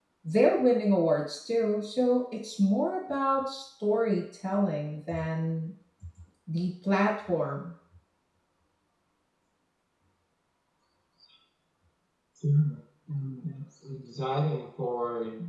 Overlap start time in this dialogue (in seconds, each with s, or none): none